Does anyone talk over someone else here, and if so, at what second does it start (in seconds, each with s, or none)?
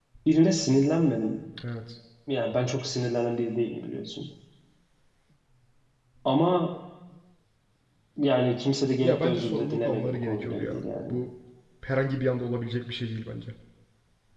9.0 s